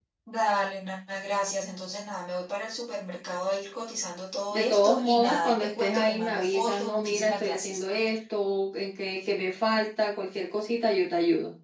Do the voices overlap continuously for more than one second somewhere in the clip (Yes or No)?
Yes